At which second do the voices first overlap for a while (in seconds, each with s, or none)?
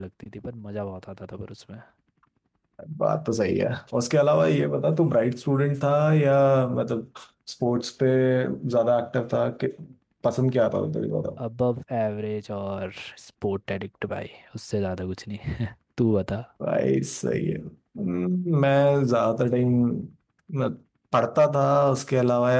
none